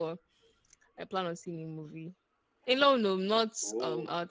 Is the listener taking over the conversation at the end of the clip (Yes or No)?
No